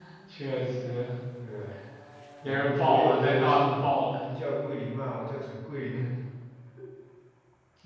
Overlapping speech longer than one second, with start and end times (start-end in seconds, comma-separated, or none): 2.4-3.8